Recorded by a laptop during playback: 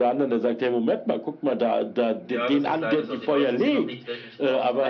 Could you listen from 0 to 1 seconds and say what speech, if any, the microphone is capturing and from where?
echo only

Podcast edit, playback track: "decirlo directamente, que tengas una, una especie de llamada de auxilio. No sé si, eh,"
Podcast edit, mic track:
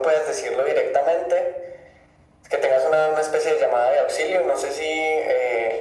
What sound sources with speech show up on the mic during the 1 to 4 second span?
echo only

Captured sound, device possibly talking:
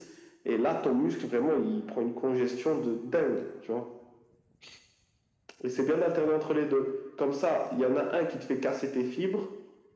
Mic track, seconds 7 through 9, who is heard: echo only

